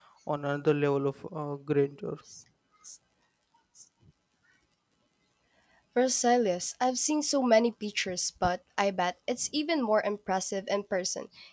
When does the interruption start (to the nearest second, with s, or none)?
none